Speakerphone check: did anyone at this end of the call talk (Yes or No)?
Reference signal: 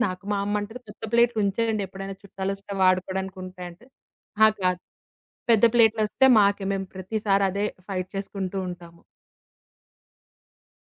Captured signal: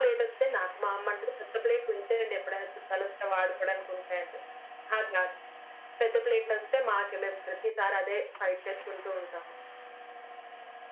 No